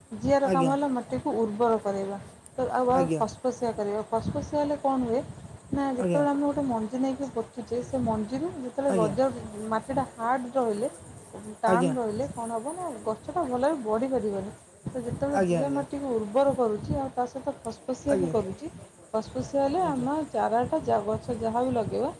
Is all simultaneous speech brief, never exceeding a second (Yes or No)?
Yes